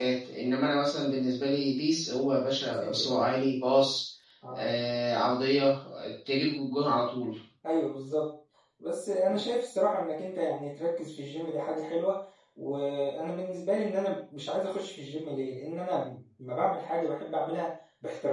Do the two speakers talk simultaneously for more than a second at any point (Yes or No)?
No